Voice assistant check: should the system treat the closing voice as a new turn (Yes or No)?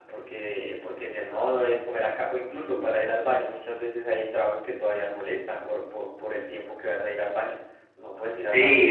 Yes